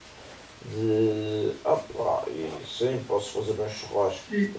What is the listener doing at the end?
taking over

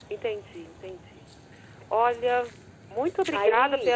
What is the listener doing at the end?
listening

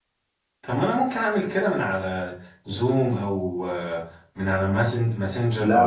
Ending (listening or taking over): taking over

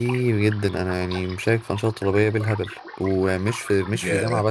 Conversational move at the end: listening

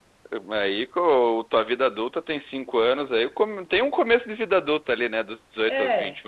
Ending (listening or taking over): taking over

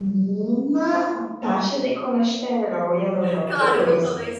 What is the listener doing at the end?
taking over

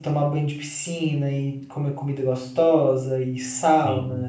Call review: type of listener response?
listening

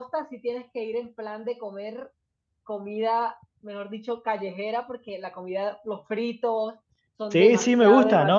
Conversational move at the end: taking over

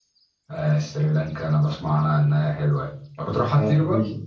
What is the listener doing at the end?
taking over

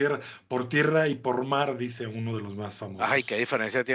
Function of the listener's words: taking over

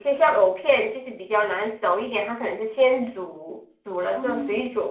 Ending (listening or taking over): listening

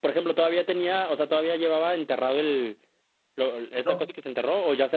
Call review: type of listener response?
listening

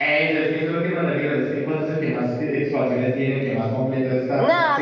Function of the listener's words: taking over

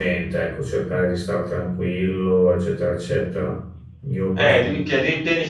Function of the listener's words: taking over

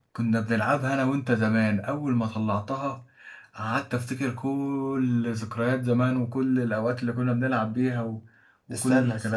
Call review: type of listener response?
listening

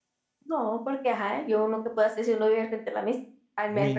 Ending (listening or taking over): taking over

